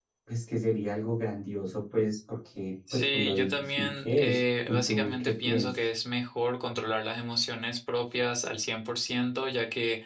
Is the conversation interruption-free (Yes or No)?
No